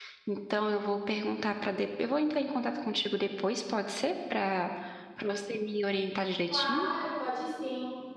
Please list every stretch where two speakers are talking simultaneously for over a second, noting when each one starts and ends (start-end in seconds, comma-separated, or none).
none